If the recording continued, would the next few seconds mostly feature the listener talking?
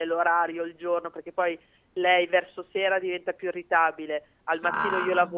No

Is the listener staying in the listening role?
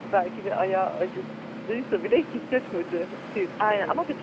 No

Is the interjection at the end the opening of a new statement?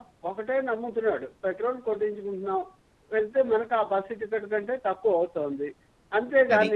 No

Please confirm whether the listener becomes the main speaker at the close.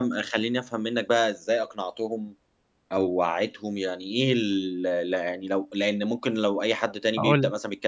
No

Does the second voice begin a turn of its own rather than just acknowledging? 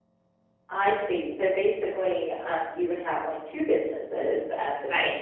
Yes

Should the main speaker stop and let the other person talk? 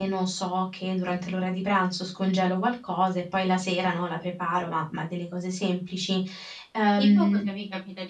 Yes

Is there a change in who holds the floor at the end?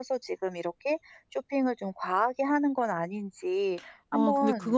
Yes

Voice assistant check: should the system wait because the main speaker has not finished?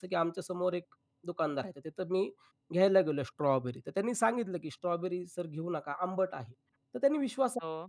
Yes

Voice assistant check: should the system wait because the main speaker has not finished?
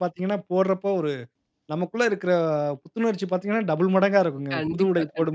No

